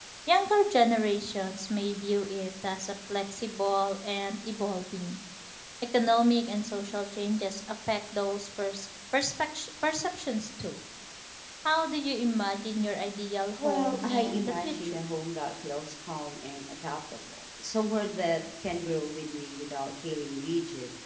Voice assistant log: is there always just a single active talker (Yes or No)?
No